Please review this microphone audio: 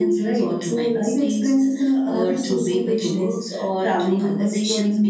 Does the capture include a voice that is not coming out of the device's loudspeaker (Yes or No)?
No